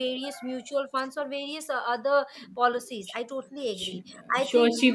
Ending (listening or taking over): taking over